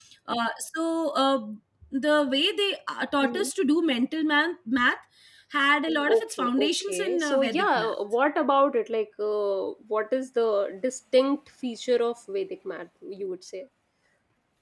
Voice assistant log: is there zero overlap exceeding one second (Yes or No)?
No